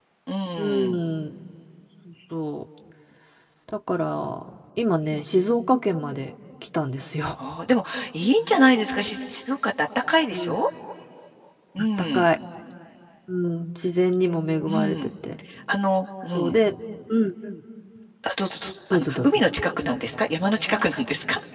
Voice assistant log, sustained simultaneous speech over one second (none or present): none